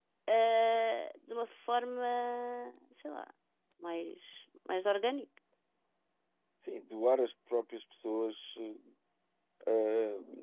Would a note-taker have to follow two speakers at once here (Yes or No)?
No